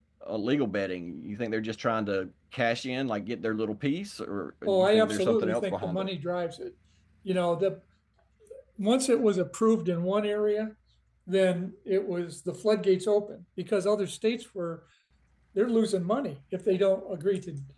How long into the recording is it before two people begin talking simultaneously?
4.7 s

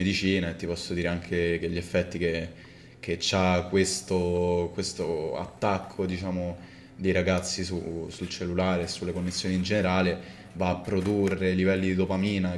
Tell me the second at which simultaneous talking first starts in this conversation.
none

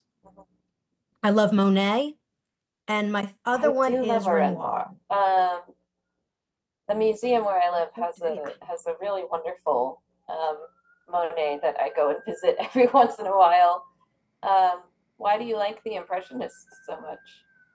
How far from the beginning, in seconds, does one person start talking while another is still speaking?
3.5 s

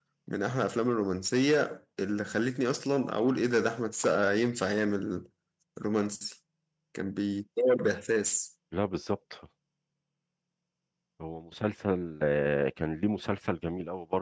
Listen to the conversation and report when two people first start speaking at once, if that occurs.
none

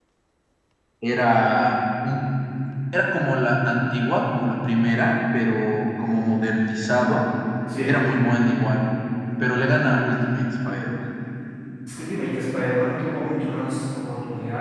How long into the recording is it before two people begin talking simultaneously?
none

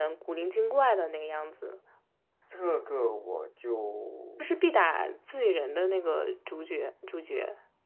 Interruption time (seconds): none

